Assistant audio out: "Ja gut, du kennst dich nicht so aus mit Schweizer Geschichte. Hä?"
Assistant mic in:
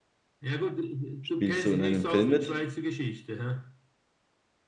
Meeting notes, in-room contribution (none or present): present